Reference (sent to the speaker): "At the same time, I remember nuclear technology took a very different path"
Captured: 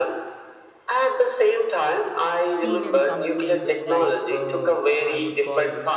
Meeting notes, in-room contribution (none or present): present